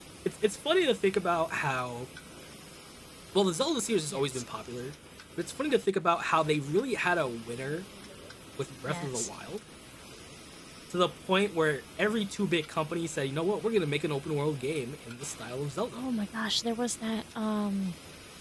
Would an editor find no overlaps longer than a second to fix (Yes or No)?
Yes